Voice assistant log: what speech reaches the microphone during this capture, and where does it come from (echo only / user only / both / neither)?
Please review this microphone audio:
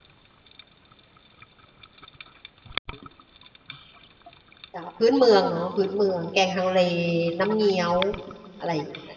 user only